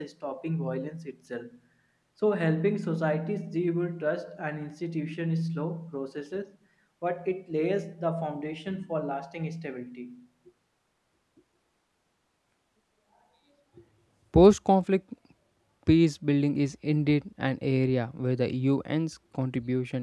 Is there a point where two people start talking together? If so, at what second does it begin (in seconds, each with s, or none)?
none